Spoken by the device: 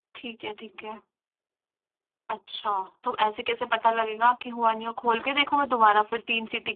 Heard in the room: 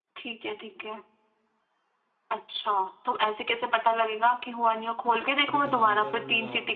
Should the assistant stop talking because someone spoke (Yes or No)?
Yes